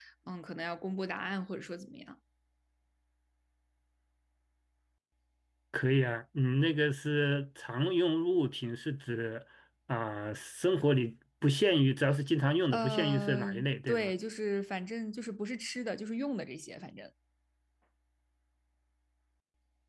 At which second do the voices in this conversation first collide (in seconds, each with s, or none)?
12.7 s